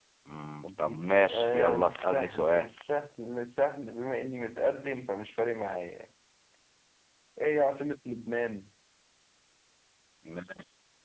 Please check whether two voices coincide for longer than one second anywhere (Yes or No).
Yes